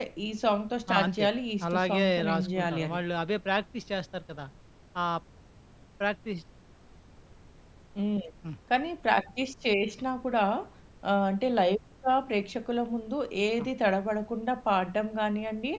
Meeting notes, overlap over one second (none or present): present